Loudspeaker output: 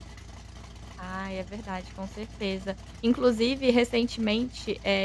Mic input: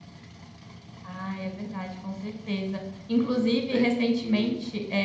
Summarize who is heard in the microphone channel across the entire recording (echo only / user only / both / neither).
both